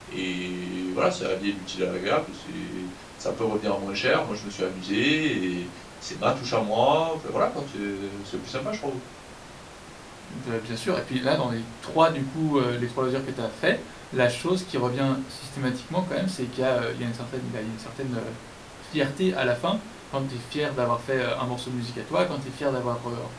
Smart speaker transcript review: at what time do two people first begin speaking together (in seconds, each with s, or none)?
none